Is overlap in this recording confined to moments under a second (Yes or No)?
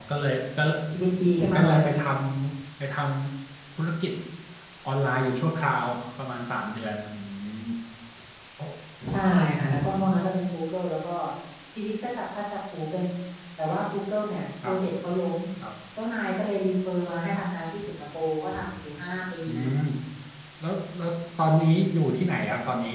Yes